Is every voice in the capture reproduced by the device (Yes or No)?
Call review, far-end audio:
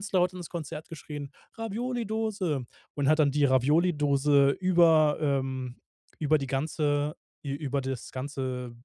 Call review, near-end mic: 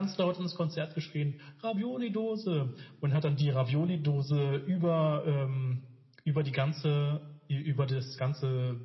Yes